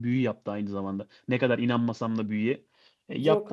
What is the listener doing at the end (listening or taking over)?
listening